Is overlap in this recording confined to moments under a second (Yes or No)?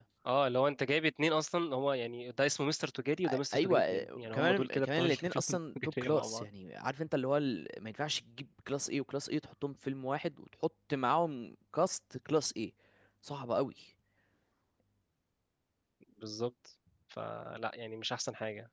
No